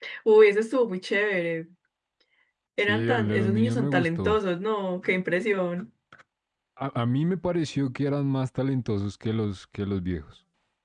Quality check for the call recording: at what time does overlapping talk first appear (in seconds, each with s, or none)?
2.9 s